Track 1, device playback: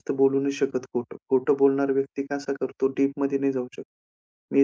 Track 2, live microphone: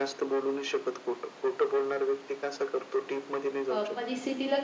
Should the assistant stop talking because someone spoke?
Yes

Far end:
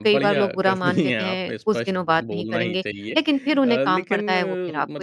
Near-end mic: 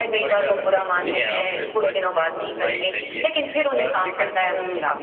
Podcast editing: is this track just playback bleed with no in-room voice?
Yes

